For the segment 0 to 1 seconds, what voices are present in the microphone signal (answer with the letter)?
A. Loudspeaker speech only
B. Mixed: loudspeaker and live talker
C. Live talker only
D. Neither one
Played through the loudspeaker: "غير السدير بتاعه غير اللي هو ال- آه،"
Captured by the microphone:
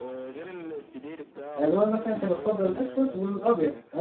A